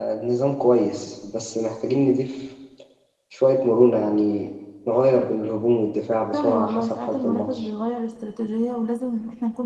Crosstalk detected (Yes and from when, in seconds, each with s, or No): Yes, from 6.3 s